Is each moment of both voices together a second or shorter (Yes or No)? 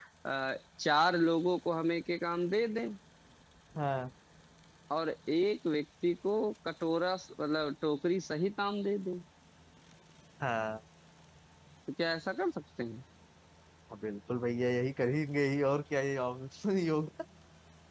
Yes